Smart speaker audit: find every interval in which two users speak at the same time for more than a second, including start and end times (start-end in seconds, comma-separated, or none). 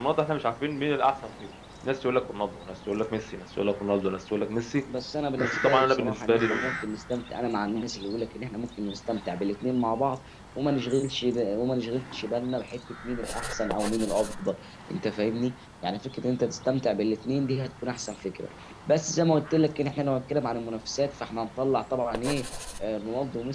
5.4-6.7